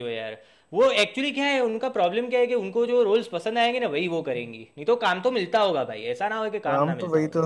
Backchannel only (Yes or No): No